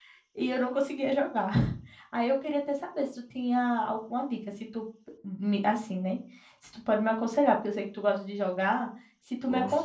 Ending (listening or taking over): listening